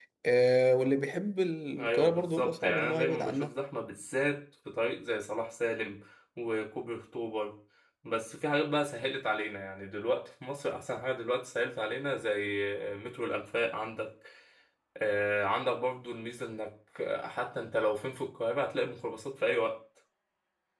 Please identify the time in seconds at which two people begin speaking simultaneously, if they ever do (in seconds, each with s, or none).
1.7 s